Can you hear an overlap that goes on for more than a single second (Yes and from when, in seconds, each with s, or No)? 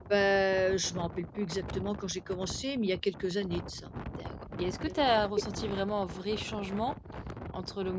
No